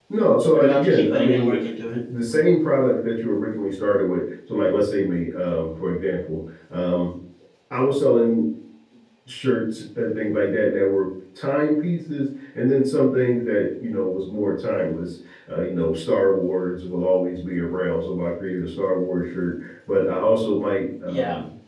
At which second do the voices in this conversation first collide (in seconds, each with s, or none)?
0.5 s